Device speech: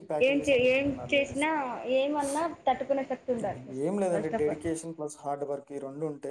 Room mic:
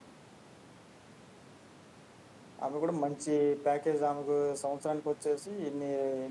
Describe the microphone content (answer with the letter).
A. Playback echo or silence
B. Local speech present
B